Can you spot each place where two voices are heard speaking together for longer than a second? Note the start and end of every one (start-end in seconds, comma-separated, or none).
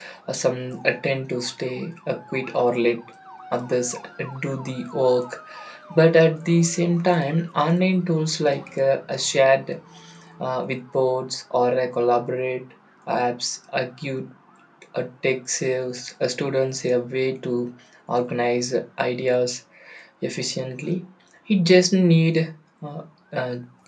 none